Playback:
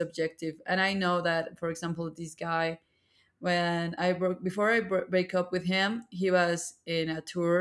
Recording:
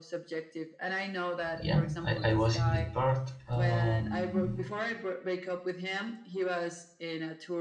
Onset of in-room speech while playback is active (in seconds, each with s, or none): 1.5 s